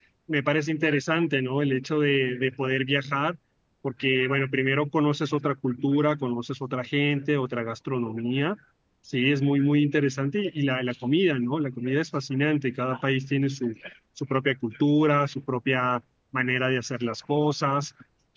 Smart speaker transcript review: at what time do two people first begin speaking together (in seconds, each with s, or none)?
none